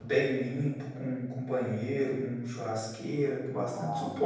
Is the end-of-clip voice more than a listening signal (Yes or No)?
No